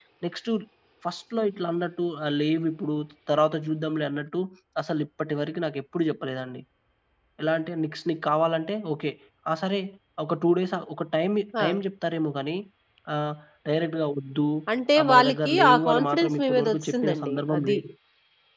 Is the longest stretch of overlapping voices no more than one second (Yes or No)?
No